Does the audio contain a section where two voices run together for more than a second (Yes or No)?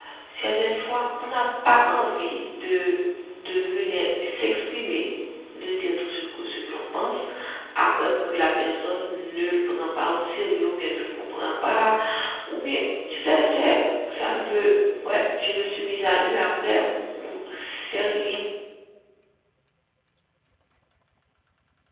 No